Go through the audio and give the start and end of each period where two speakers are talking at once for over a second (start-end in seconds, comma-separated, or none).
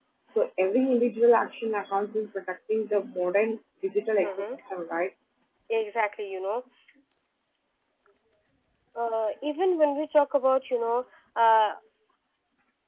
none